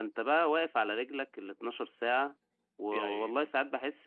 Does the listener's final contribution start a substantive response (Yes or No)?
No